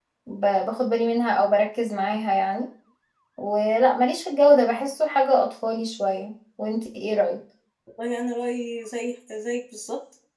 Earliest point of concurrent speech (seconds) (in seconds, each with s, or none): none